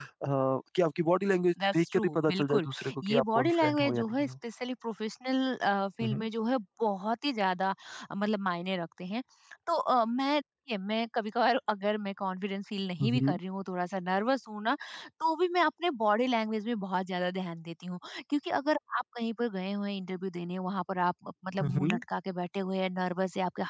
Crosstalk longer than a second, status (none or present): present